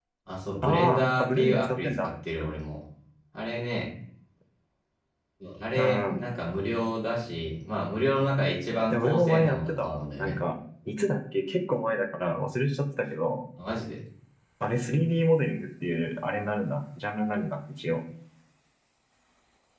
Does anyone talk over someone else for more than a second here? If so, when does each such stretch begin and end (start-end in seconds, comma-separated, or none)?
0.6-2.0, 8.9-10.3